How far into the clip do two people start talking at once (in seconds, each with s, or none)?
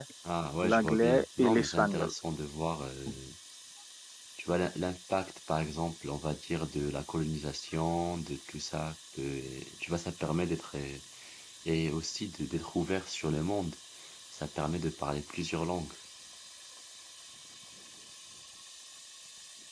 0.6 s